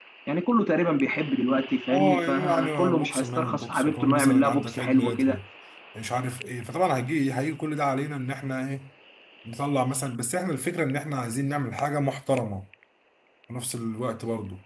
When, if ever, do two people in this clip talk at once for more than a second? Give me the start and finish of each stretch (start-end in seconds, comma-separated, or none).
1.9-5.4